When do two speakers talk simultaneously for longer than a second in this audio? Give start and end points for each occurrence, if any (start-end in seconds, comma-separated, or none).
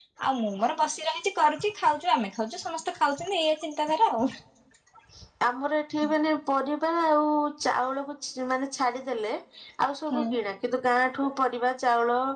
none